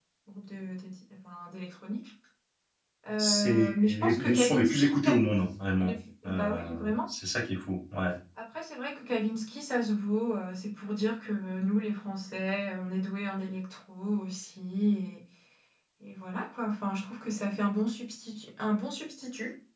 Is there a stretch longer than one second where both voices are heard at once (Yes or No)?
Yes